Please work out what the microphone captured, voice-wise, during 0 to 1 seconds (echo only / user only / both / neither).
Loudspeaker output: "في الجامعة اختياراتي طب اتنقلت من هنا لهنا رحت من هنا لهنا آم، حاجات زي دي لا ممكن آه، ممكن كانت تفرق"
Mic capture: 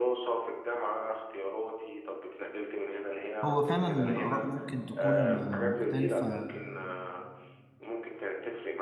echo only